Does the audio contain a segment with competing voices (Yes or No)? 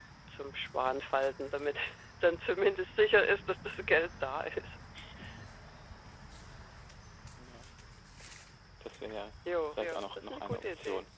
Yes